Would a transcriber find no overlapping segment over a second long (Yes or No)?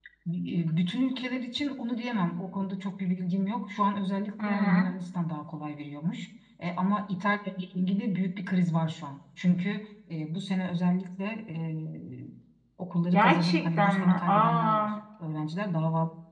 No